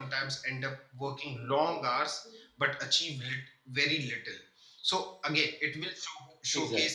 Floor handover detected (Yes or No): No